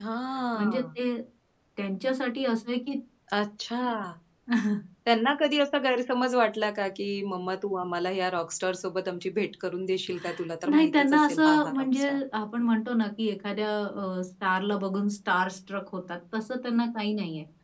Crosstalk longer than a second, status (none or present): present